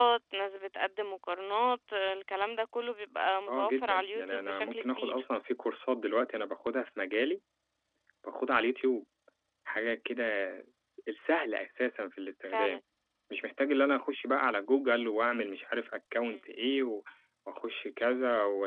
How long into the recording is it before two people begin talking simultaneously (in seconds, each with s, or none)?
3.5 s